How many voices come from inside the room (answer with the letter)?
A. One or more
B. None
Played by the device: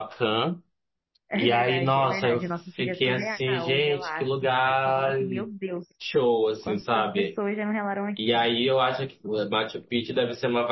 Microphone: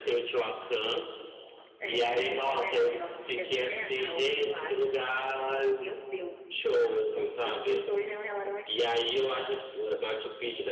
B